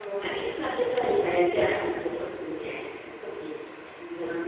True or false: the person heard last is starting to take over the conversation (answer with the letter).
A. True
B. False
B